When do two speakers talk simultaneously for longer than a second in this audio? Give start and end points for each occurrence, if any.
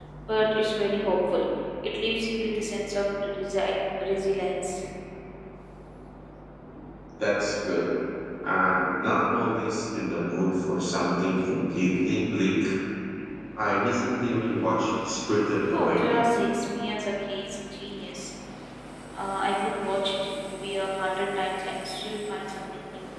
none

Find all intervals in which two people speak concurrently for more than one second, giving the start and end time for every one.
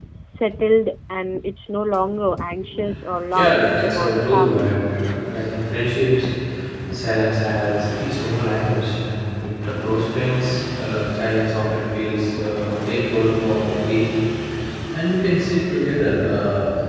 3.3-4.9

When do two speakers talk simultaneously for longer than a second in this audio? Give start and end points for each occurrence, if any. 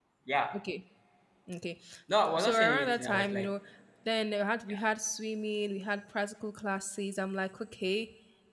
2.2-3.5

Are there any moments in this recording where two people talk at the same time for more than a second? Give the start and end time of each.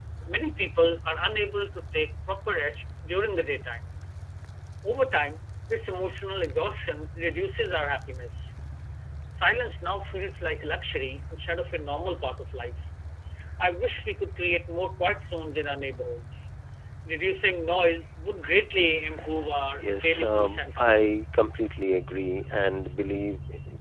19.8-21.1

